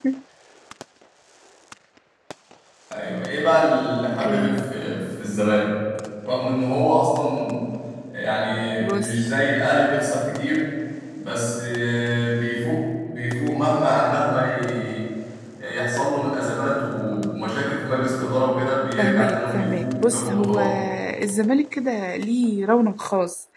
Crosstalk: present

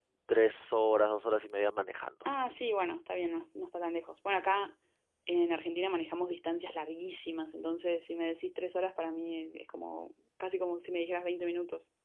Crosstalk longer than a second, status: none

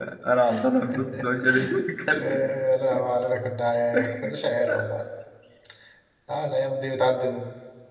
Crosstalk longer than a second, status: none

